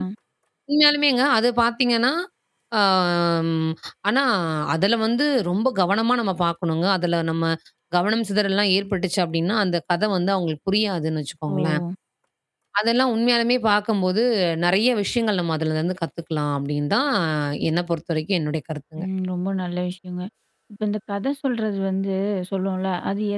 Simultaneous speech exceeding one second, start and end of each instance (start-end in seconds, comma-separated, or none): none